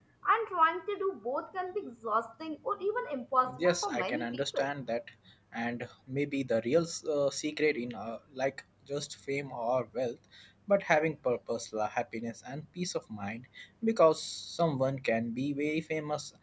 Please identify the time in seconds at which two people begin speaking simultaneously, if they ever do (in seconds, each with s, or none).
3.4 s